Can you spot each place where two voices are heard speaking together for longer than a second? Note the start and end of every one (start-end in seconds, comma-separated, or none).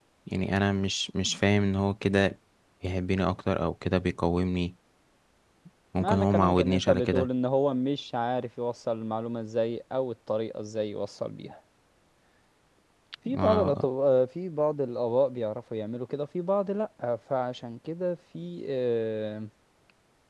6.0-7.3